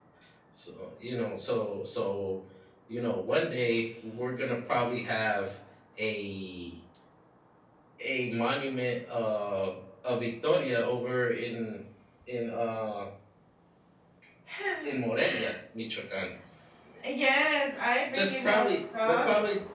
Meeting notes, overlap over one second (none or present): present